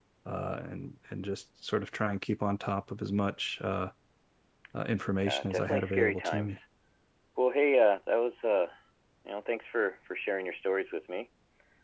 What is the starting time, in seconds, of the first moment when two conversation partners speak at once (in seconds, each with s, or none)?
5.3 s